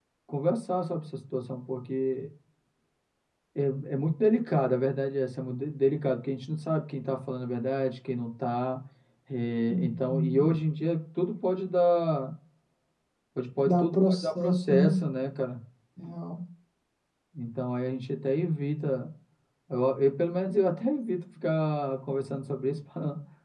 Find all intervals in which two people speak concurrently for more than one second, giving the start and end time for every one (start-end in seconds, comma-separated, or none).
13.6-15.0